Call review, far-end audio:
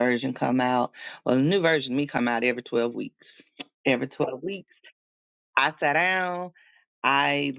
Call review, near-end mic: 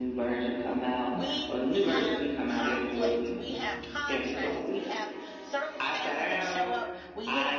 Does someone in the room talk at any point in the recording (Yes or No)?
Yes